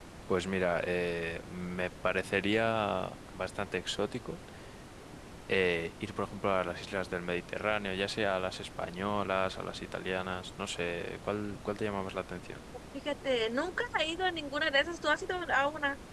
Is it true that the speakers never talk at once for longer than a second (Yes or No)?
Yes